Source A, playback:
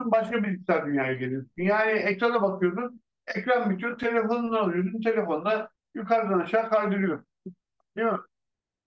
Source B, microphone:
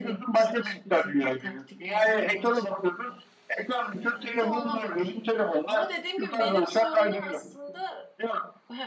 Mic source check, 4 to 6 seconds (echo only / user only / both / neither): both